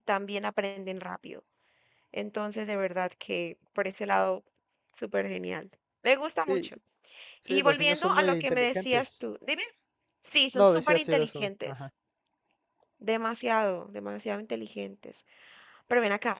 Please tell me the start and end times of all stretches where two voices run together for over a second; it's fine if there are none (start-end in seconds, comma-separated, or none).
7.5-9.1, 10.5-11.8